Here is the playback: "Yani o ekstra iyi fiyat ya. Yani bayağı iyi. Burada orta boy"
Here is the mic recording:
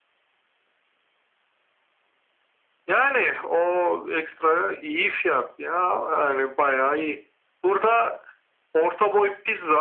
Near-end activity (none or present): none